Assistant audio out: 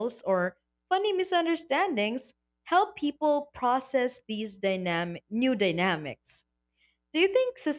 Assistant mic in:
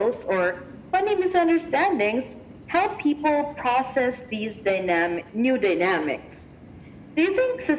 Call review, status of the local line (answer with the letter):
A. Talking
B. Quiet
B